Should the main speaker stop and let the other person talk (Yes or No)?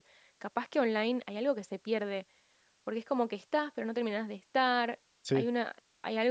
No